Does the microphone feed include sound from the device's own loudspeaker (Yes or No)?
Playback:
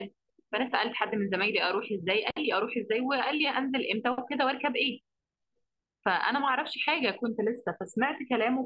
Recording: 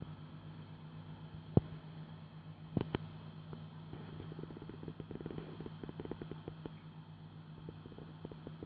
No